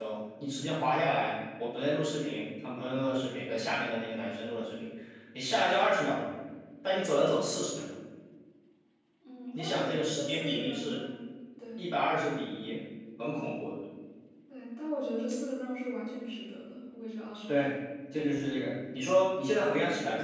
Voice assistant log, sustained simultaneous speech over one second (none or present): present